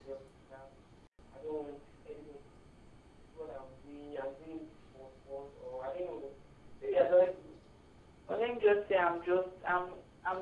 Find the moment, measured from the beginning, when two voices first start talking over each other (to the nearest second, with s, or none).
none